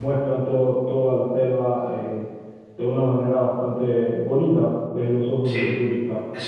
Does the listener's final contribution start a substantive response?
Yes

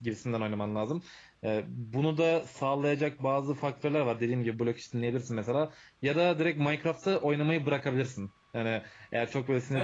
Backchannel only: No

